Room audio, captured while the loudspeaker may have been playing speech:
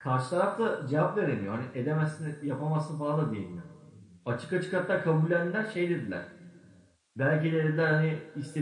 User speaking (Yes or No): Yes